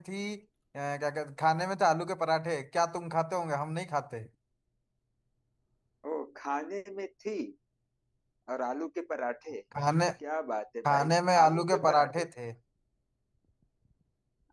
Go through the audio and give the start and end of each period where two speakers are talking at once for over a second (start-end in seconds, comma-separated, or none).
10.8-12.2